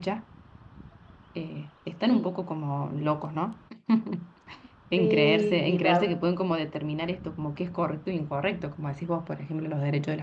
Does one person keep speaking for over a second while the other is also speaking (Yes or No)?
Yes